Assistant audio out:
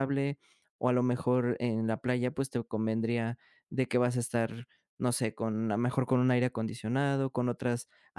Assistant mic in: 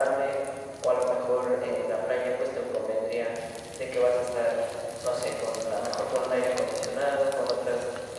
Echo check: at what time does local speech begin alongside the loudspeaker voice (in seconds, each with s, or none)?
none